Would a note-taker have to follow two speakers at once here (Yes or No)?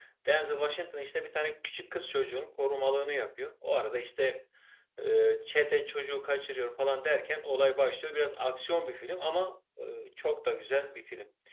No